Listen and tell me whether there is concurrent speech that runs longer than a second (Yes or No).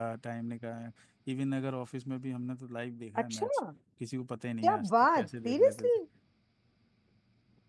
Yes